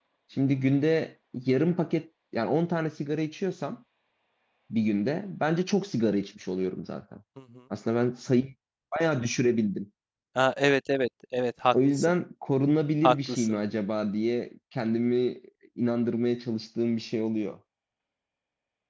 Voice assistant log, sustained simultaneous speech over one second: none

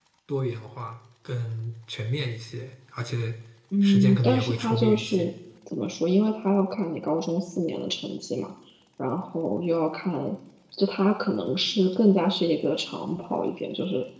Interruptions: present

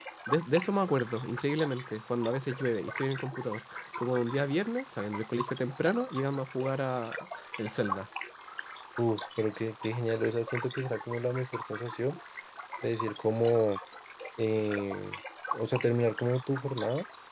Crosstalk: none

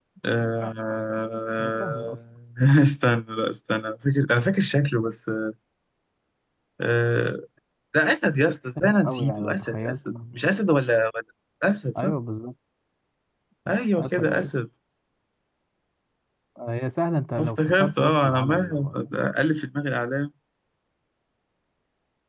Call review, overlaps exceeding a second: present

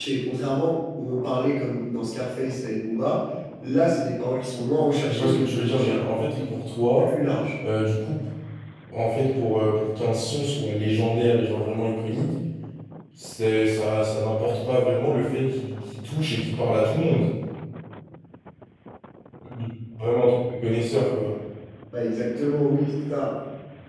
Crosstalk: present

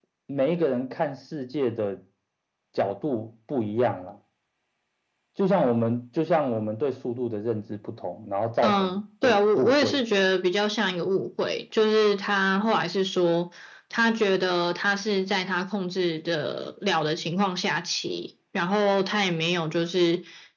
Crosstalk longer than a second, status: present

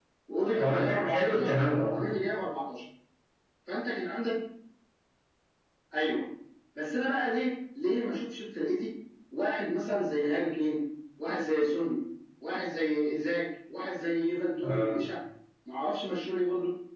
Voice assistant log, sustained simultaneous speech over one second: present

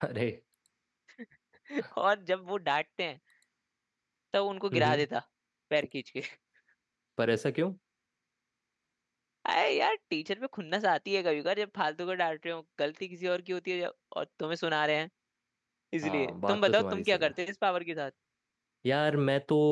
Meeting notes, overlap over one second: present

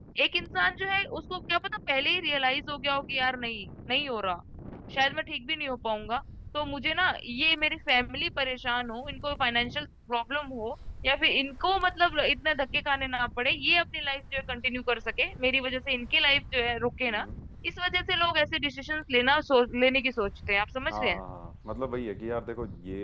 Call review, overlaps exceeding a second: none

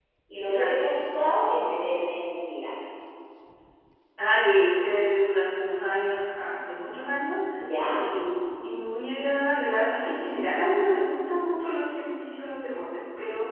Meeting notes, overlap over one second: none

